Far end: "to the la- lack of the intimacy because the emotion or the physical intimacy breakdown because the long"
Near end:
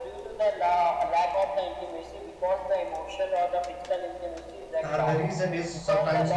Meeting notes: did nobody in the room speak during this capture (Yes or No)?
No